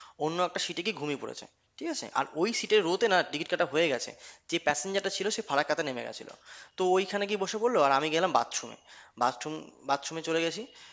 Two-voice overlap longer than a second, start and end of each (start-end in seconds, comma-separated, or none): none